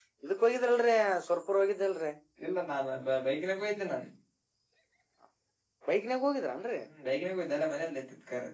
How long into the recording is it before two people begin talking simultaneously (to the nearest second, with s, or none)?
none